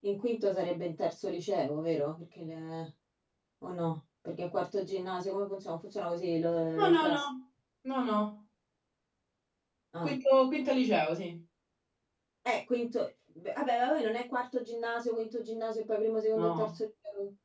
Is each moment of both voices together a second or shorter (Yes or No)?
Yes